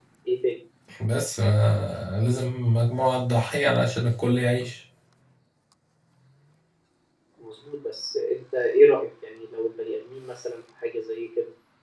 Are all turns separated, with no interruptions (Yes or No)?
Yes